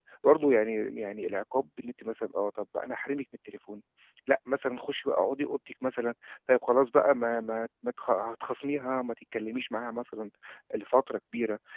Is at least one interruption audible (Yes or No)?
No